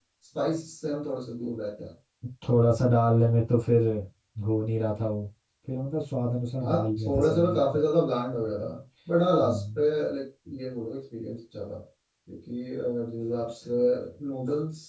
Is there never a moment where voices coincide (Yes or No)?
No